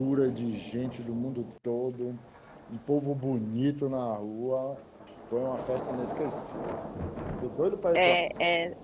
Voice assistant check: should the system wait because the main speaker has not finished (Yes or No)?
No